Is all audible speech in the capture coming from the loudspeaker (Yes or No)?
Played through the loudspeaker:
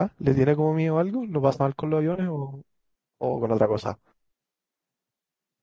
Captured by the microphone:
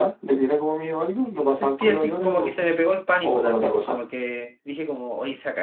No